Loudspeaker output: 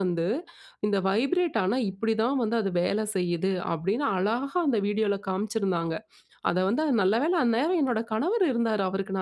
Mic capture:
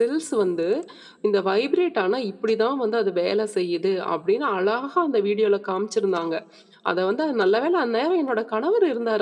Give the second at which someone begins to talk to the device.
none

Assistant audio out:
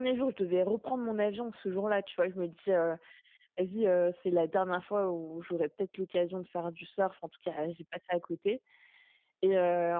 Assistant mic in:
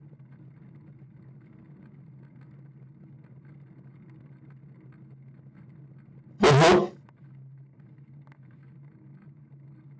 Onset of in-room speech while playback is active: 6.4 s

